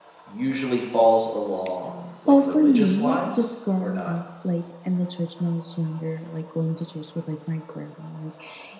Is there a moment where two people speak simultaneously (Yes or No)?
Yes